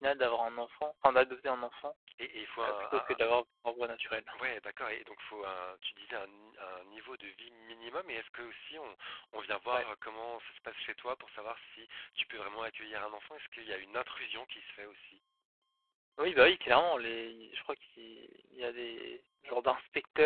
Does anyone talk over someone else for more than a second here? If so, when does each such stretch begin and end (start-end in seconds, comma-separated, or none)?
none